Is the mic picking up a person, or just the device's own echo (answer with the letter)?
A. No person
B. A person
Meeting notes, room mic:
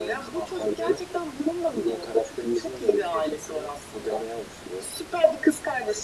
A